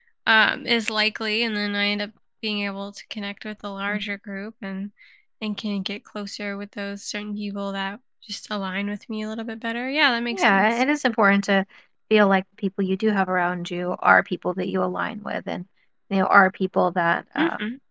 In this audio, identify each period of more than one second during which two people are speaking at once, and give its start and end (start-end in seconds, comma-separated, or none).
none